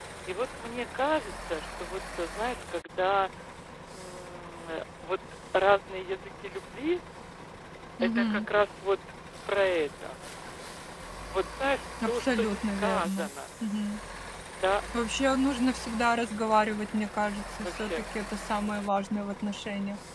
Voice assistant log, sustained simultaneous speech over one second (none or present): present